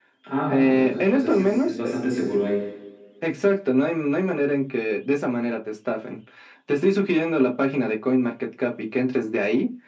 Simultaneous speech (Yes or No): Yes